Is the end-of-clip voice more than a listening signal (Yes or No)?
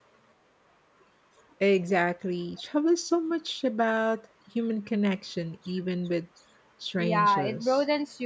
Yes